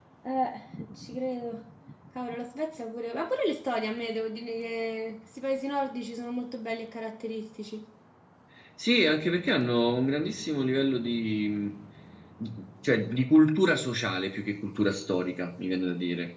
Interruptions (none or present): none